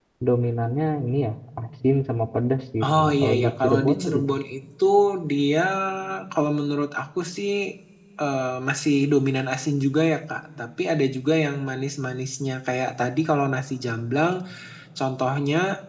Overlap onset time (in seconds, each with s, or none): 2.8 s